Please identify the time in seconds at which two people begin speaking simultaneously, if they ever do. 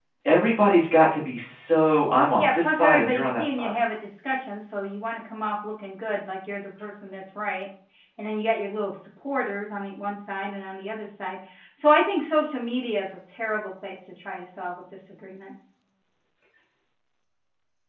2 s

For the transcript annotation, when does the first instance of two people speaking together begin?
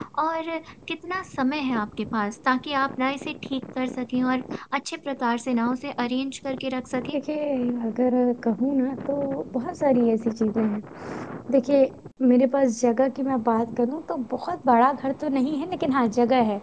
none

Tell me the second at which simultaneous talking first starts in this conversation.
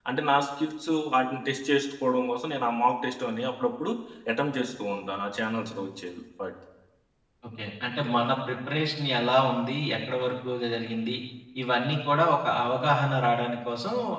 none

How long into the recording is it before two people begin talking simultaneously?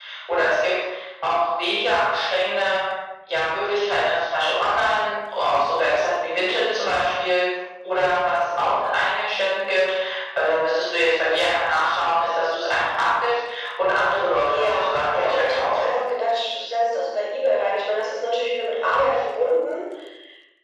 14 s

